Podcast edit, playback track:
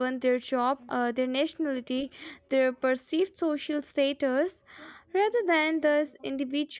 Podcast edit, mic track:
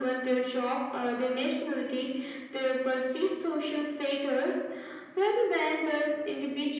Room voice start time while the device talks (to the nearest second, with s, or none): none